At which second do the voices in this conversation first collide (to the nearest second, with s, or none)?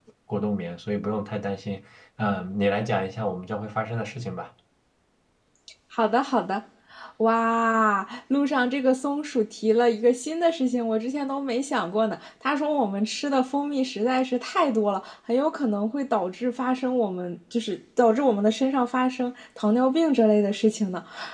none